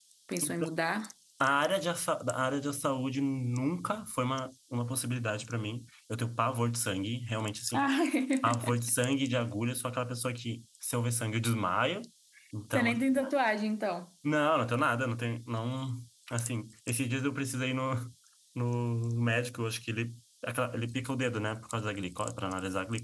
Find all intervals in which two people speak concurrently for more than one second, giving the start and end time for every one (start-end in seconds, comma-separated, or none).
none